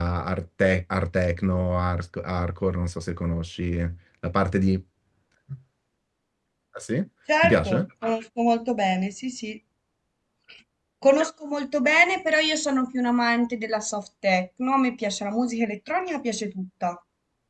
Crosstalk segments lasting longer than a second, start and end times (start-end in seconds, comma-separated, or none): none